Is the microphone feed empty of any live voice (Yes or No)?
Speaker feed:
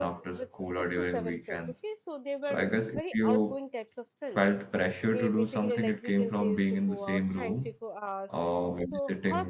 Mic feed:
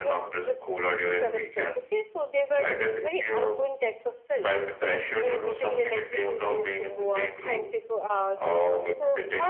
Yes